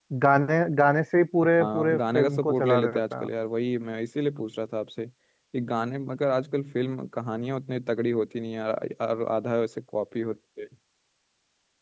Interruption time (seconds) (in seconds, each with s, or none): 1.6 s